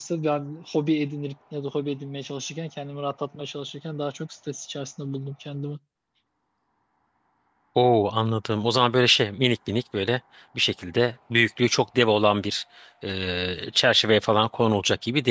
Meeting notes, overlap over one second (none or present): none